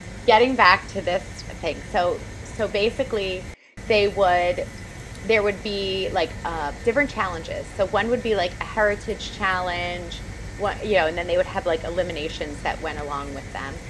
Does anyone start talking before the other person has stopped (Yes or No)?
No